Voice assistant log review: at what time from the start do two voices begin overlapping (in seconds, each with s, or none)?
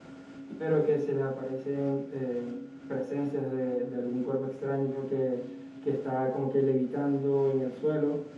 none